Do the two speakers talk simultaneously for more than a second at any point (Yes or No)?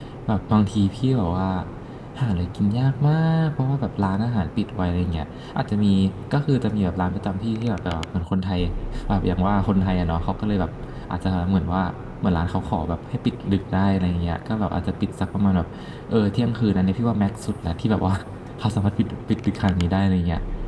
No